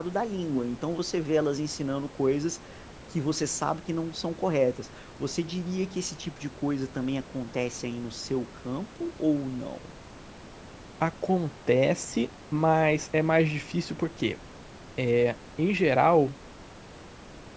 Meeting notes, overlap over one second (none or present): none